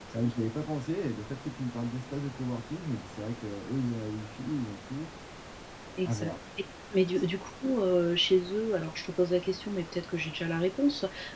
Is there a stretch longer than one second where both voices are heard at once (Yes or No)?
No